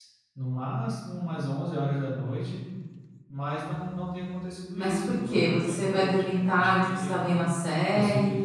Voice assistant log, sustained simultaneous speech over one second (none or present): present